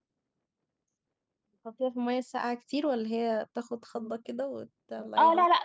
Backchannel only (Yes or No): No